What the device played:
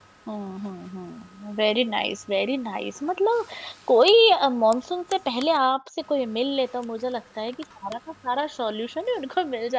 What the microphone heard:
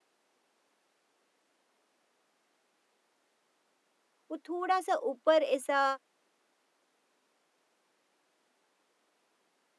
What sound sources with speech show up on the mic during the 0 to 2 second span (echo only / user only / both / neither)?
neither